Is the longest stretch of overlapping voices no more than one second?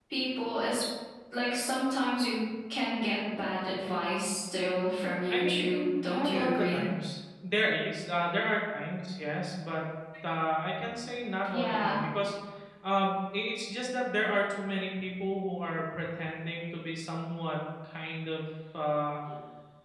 No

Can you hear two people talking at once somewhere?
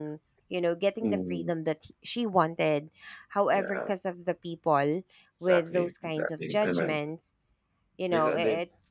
Yes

